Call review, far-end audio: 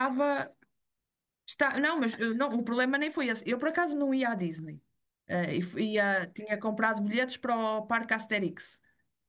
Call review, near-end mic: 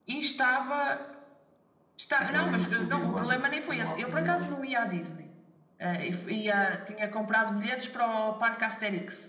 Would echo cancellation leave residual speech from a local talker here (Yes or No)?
Yes